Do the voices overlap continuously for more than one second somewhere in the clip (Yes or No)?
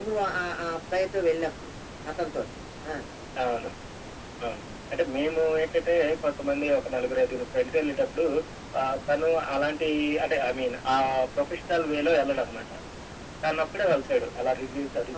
No